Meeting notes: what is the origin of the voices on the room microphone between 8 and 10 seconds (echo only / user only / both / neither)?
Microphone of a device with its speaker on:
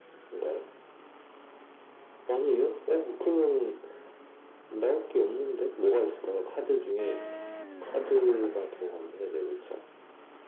echo only